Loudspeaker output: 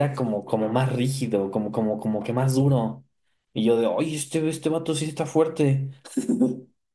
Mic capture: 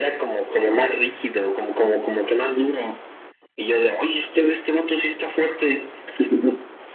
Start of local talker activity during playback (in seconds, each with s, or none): none